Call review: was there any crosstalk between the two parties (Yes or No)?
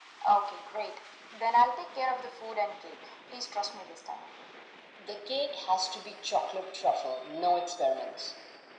No